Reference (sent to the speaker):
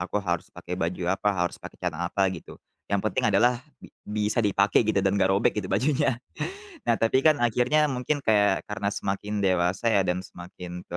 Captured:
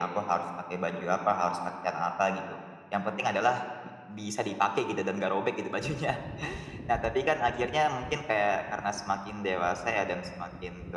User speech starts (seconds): none

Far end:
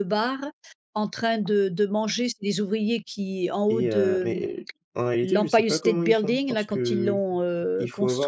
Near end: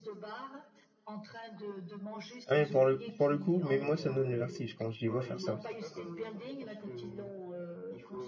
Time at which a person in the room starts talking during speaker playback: 2.5 s

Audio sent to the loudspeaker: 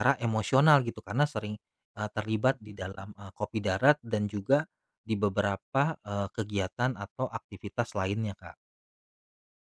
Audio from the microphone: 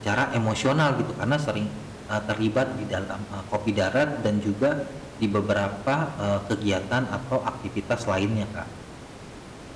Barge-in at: none

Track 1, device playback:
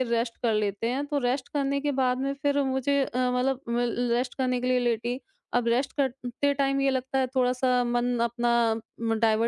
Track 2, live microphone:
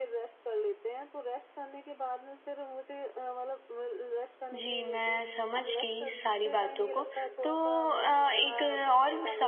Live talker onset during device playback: 4.5 s

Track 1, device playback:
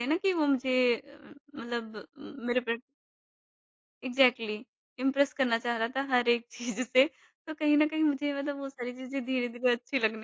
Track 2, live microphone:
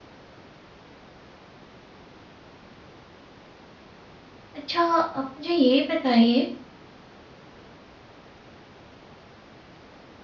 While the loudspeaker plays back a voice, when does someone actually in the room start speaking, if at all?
4.6 s

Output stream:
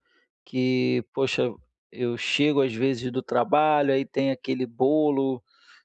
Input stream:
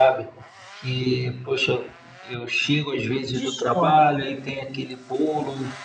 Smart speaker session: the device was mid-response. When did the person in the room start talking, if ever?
3.3 s

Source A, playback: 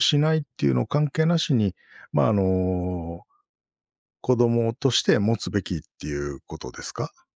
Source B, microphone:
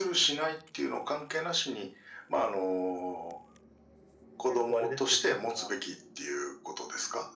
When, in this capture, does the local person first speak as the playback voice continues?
4.5 s

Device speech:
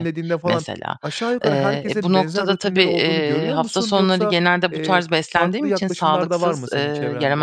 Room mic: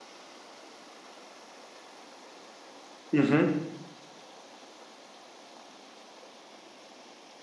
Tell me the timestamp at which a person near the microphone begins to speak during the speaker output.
3.1 s

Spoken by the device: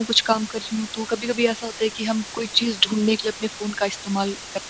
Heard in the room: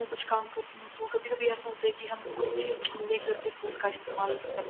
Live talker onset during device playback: 2.2 s

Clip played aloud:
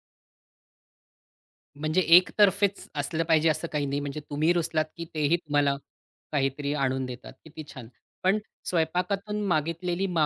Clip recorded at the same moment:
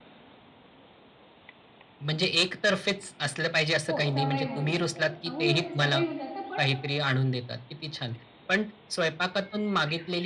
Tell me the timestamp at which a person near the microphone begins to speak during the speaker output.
3.9 s

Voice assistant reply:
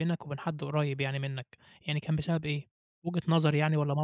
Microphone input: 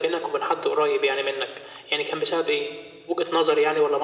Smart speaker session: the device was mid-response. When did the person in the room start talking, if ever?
none

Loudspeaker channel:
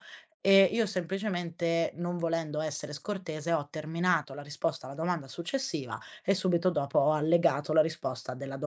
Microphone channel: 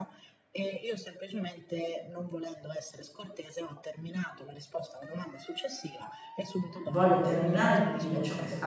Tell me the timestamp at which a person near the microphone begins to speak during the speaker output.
6.8 s

